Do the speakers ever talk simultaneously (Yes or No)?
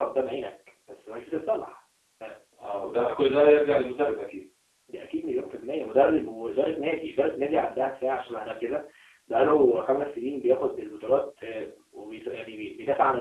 No